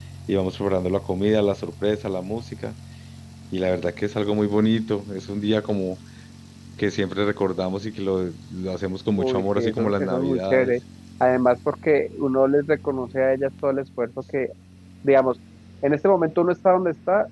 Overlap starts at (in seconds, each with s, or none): 9.2 s